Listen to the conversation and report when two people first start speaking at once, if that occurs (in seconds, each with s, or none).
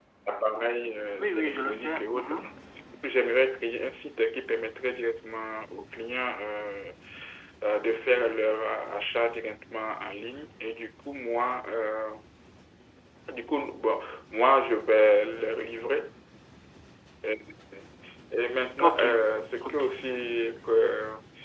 1.2 s